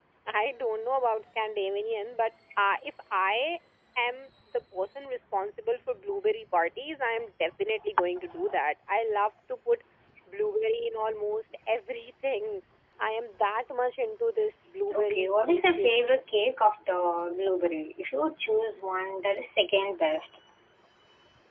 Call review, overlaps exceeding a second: present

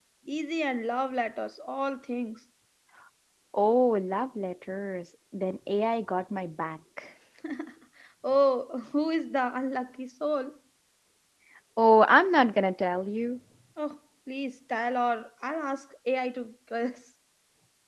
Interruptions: none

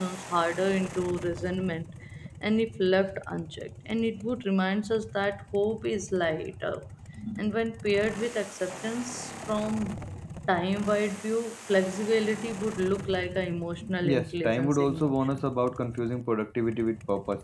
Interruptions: present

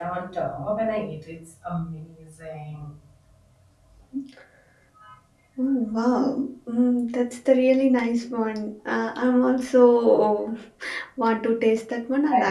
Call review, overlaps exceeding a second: none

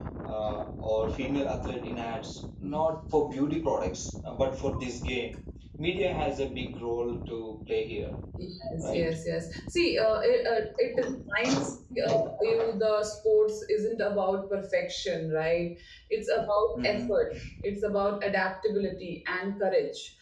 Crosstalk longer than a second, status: none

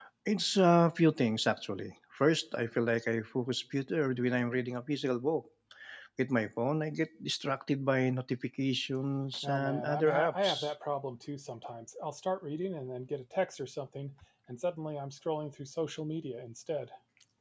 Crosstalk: present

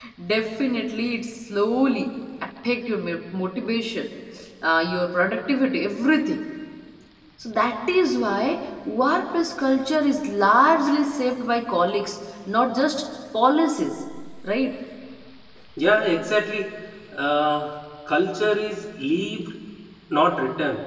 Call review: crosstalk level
none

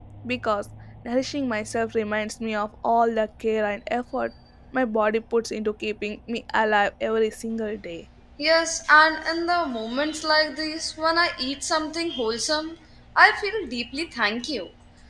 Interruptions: none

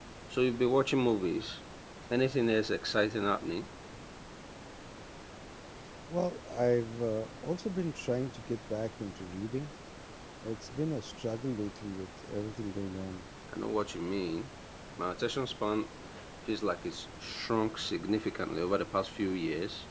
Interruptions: none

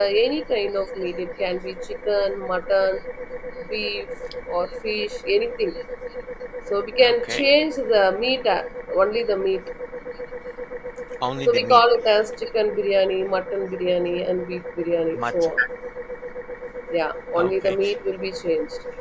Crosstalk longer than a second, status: none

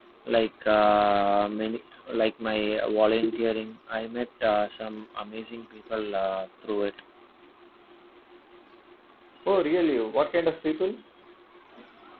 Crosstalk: none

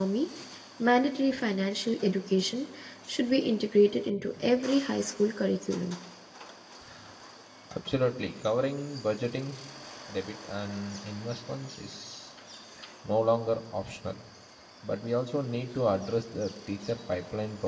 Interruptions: none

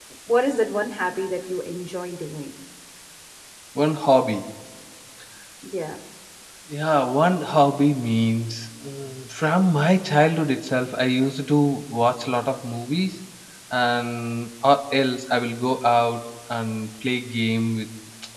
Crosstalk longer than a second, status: none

